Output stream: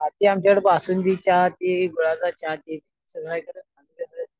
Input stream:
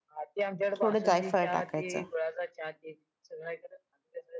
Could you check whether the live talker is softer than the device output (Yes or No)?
No